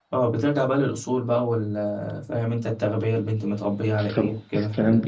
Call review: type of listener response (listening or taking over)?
taking over